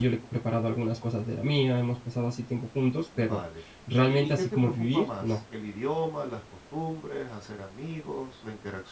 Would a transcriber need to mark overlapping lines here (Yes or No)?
Yes